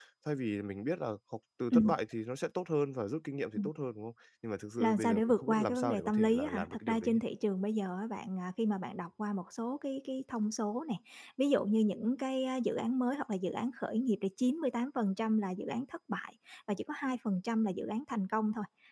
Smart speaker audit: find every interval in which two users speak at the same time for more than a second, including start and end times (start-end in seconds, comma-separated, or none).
4.8-7.1